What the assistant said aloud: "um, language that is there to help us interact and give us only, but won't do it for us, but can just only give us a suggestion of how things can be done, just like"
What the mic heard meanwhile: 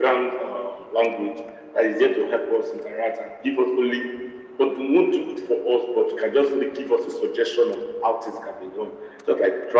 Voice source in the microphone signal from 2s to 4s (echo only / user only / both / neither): echo only